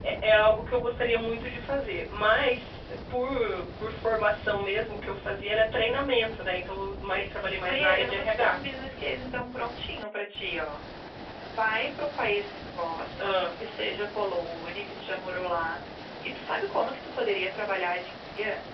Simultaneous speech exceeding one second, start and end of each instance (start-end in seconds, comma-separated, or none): 7.0-8.6